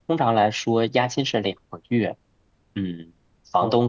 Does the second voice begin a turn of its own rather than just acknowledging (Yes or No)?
No